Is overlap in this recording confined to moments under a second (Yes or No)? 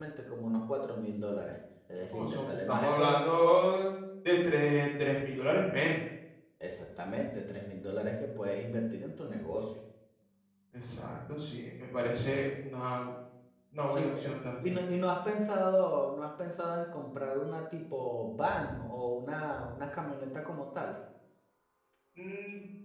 No